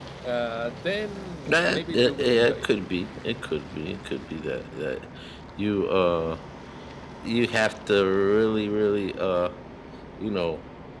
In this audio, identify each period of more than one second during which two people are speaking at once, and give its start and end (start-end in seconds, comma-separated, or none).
1.5-2.7